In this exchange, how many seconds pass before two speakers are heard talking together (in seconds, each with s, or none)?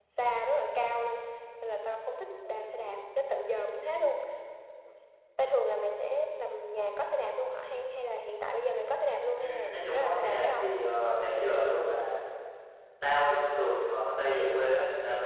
9.3 s